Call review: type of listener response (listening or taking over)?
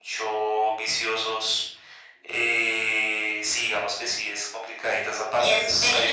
taking over